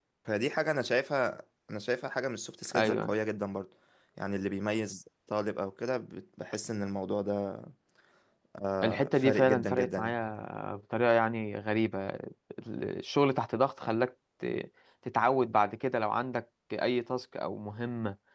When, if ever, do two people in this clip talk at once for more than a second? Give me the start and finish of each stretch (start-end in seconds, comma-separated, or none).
8.8-10.1